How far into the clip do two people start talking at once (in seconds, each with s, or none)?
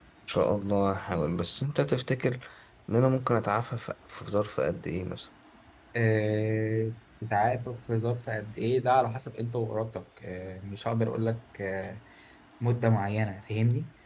none